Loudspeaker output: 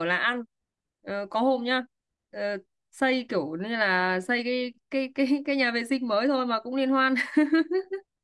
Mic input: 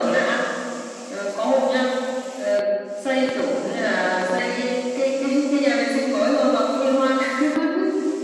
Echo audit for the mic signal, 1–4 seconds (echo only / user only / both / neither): echo only